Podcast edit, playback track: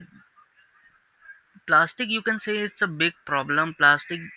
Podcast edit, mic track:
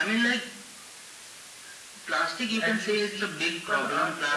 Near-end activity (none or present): present